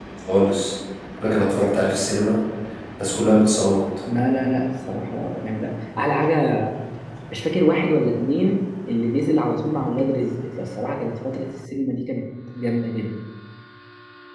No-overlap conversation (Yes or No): Yes